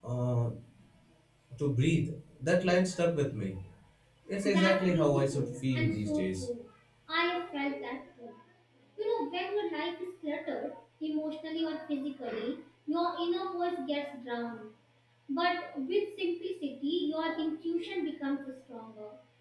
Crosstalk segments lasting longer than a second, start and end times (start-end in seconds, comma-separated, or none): 4.5-6.5